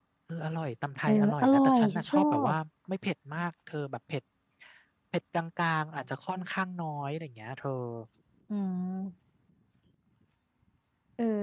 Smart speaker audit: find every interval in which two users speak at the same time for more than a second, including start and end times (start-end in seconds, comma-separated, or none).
1.1-2.5